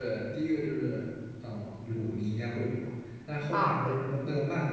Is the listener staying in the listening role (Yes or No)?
Yes